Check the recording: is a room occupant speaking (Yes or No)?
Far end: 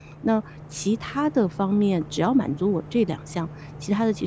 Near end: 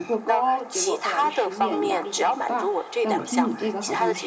Yes